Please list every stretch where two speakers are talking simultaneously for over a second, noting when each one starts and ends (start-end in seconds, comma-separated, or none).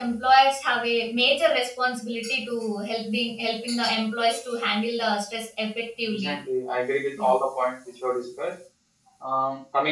none